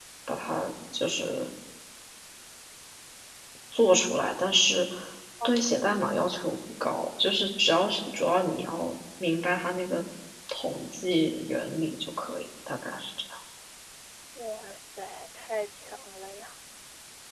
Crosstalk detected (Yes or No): No